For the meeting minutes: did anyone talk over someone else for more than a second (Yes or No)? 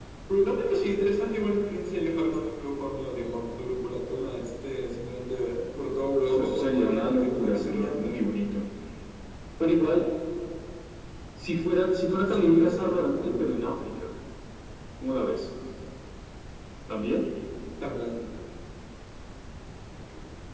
Yes